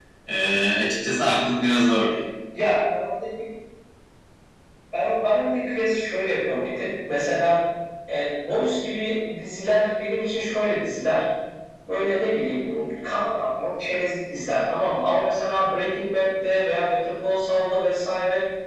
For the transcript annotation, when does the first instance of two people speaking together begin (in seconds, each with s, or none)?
none